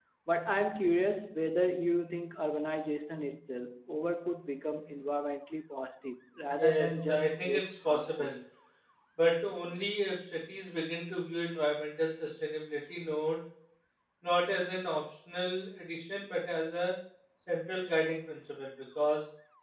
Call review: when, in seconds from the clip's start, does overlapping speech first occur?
6 s

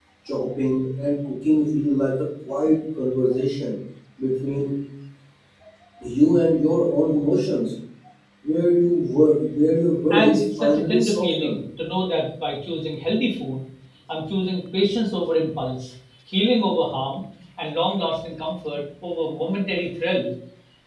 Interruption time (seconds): 10 s

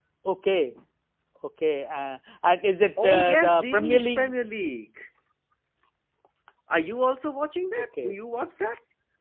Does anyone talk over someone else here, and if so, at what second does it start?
3 s

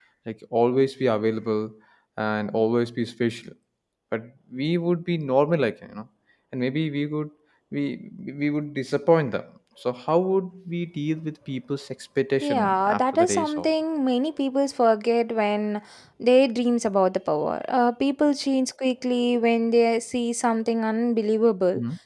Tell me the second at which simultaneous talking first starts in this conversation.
12 s

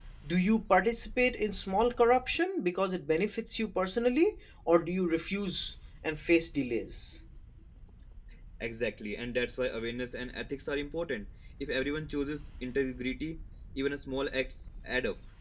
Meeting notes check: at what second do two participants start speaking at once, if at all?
none

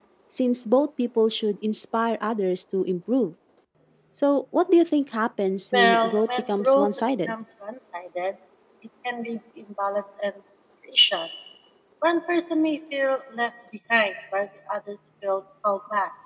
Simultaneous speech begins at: 6 s

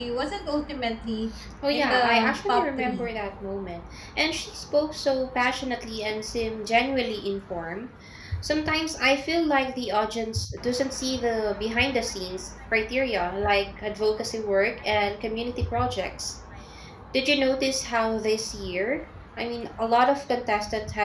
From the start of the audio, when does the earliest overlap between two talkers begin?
2 s

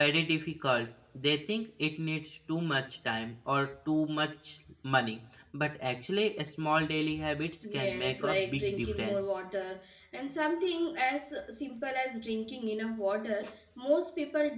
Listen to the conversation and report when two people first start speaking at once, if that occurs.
8 s

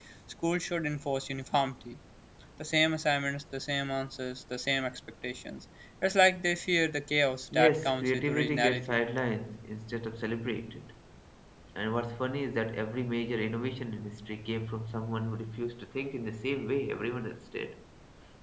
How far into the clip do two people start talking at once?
8 s

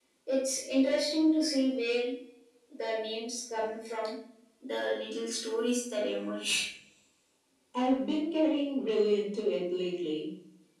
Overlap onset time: none

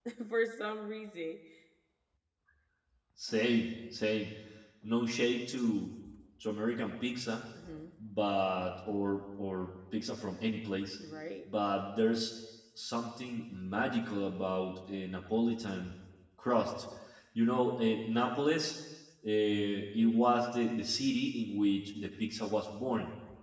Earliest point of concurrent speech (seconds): none

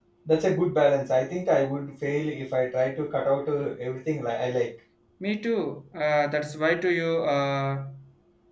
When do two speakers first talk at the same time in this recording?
none

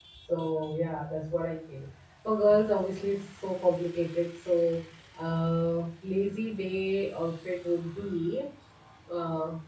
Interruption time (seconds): none

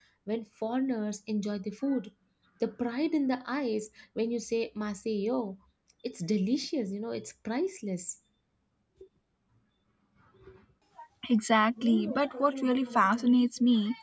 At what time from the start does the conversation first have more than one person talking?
none

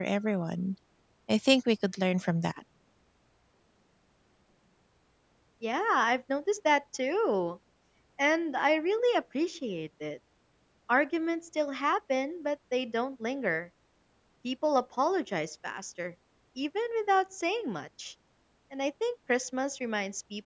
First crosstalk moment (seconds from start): none

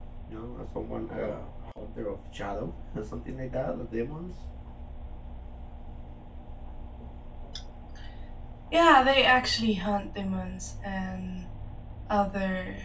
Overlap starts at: none

